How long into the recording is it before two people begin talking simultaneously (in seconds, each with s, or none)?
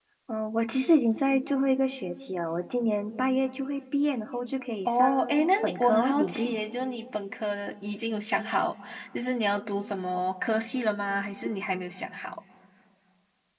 4.8 s